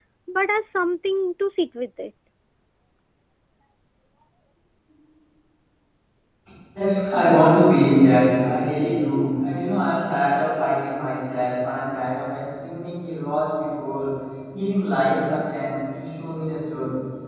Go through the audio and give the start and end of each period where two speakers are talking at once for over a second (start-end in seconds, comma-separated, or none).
none